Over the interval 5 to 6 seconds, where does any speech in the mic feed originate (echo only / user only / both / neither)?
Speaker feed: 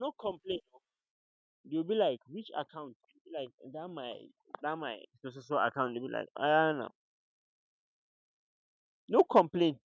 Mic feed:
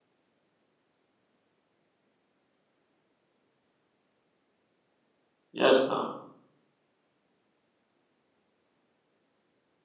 user only